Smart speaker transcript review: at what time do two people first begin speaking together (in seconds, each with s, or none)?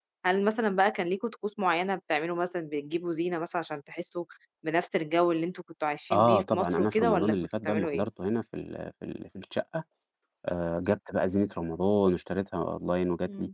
6.1 s